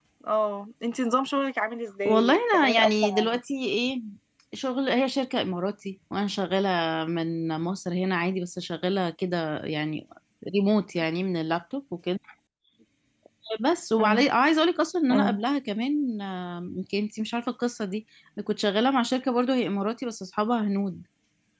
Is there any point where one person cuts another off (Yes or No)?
Yes